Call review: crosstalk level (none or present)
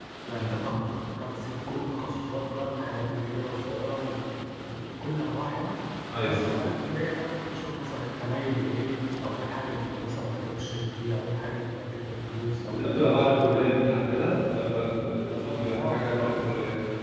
present